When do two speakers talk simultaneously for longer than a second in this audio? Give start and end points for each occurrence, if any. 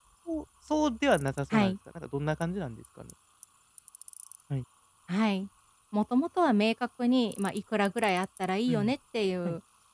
none

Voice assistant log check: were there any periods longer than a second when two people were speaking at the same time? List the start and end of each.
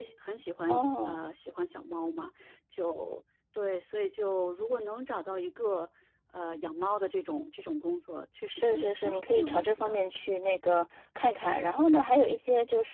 8.5-10.0

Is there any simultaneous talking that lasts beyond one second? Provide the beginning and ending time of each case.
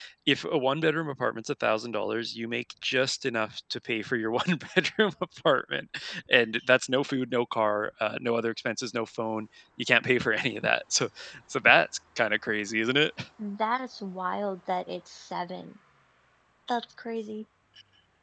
none

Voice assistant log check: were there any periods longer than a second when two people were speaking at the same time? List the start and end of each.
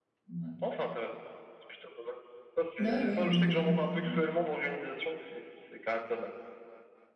2.8-4.2

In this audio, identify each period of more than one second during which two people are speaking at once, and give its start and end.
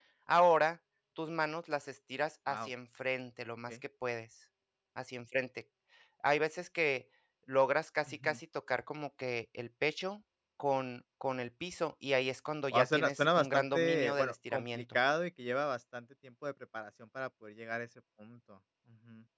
12.7-14.8

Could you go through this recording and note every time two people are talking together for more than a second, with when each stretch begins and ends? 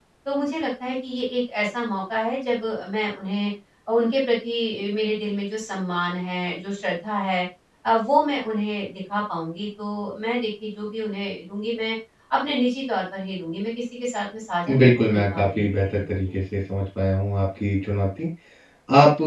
14.8-16.4

